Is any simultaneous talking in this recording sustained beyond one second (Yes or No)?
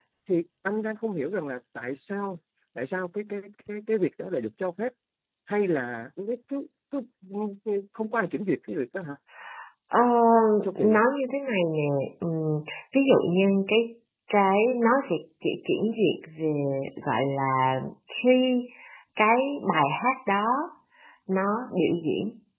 No